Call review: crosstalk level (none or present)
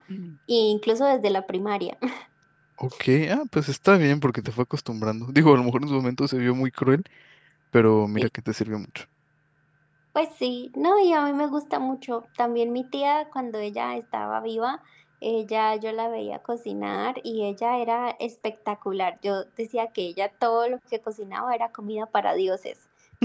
none